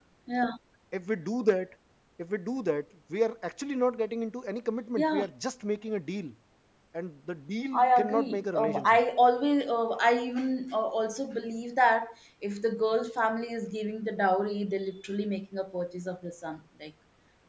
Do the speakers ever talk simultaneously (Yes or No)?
Yes